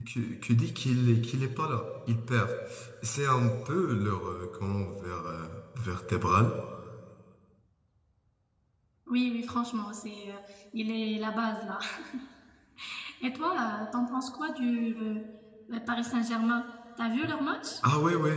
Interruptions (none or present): none